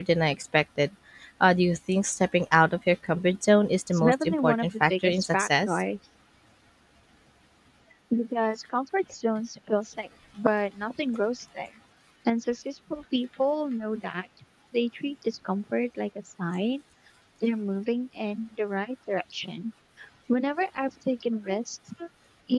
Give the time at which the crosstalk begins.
3.9 s

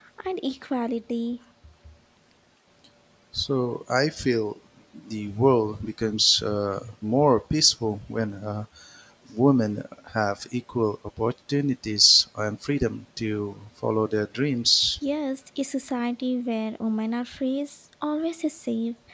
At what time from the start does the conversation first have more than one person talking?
none

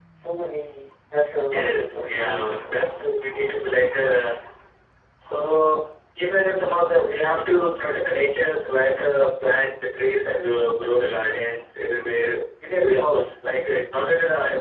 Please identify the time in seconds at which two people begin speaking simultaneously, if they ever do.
1.5 s

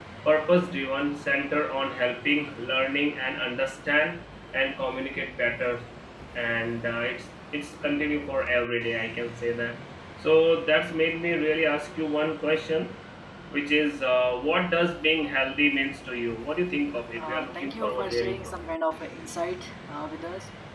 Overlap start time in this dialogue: 17.2 s

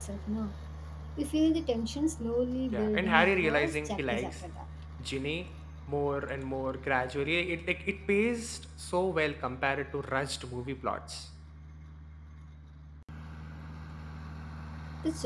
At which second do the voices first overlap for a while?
2.7 s

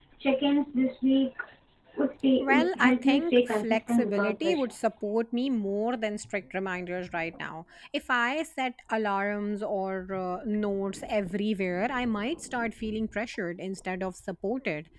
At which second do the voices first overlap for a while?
2.4 s

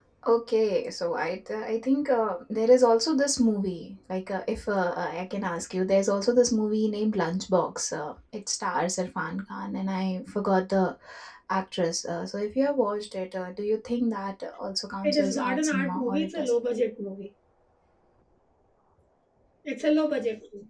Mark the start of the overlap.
15.0 s

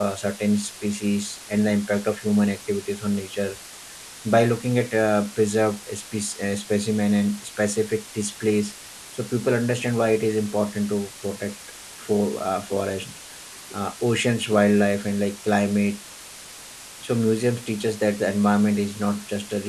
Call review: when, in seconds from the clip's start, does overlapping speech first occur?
none

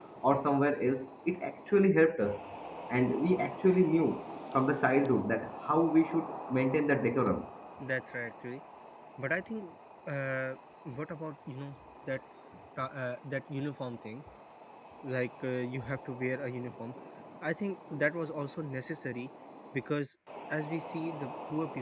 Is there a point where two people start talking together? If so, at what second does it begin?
none

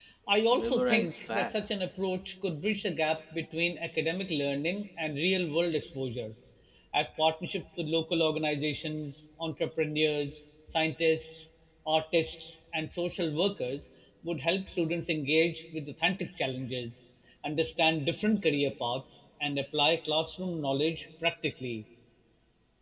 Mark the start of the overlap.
0.5 s

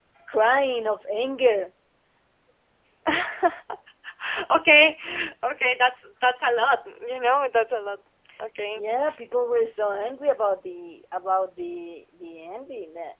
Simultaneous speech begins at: none

